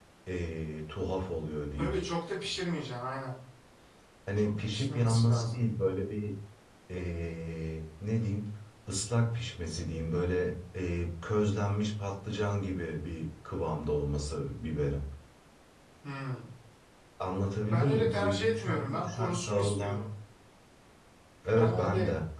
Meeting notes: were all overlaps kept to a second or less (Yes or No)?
No